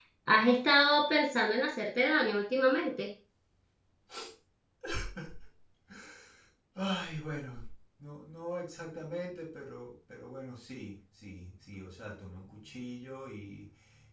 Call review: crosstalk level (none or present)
none